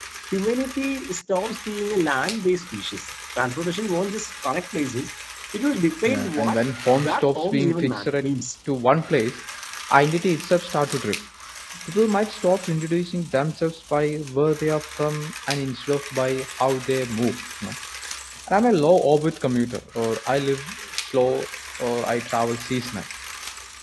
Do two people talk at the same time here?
Yes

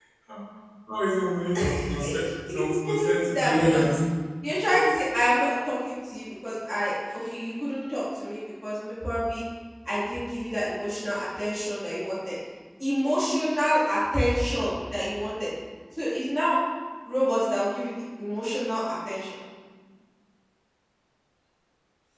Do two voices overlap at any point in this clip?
Yes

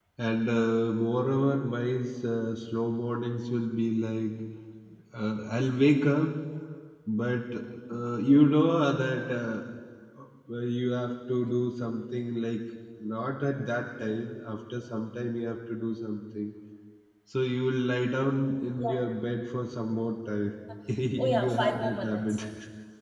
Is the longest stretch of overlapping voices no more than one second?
No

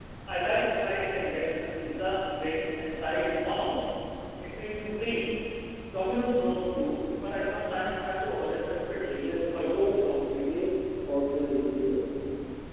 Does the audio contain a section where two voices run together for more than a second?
Yes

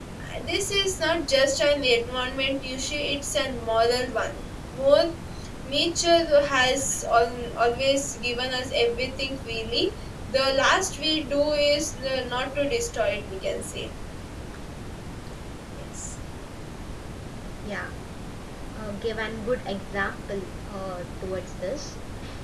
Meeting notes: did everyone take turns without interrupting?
Yes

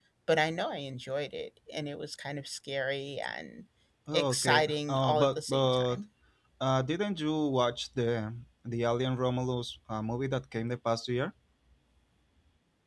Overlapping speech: Yes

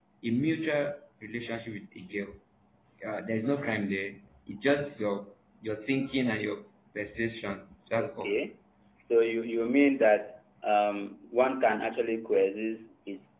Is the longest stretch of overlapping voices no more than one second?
Yes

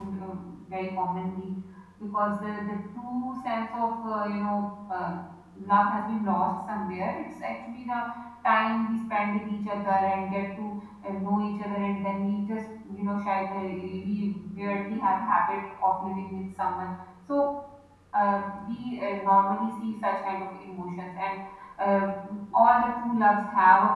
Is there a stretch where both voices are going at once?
No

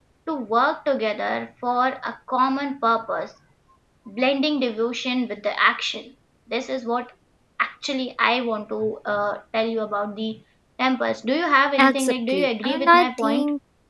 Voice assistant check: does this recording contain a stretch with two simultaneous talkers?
Yes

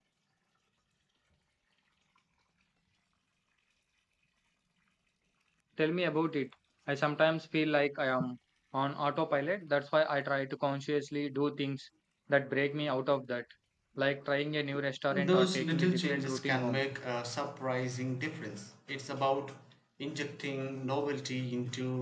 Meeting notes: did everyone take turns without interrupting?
No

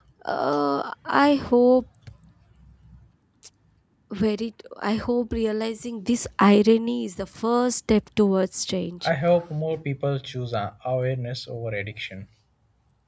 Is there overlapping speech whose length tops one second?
No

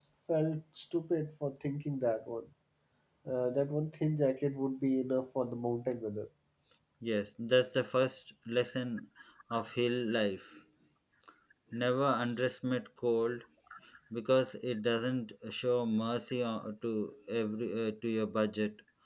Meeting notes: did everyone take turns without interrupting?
Yes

